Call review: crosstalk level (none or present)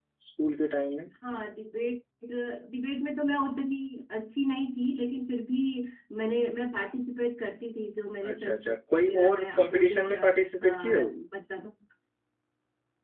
present